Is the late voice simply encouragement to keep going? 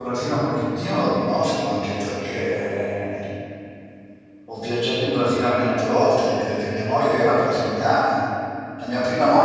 Yes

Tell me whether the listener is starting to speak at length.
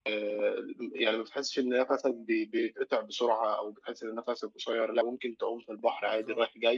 No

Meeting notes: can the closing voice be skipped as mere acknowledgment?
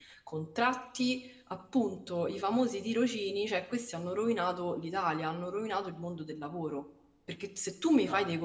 Yes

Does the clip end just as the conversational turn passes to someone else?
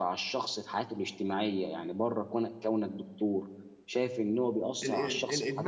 Yes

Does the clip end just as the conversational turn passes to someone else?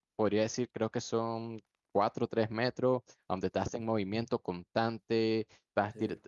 No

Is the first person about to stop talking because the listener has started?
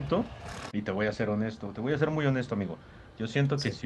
No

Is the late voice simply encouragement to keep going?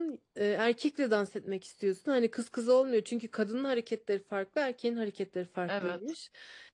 Yes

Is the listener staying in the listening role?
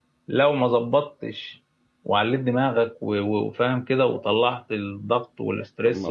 No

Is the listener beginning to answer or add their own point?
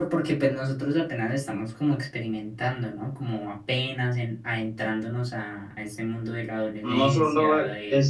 Yes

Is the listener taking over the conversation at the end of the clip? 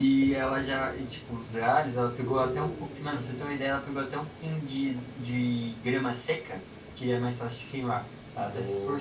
Yes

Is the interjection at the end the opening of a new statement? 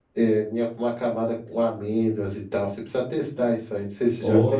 Yes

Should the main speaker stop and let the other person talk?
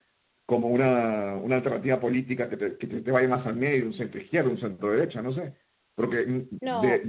No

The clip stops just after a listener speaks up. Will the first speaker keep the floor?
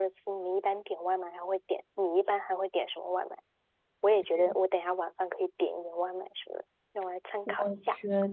No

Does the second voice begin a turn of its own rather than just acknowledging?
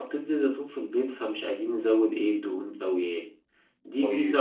No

